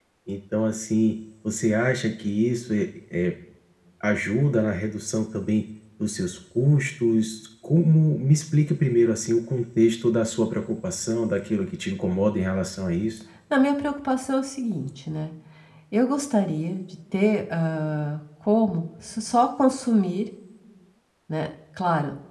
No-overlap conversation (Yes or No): Yes